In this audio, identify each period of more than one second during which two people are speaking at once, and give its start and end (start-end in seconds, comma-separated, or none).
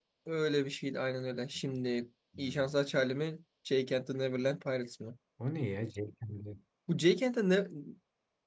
none